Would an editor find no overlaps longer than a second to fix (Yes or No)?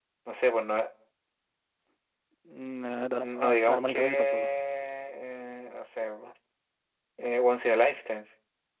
No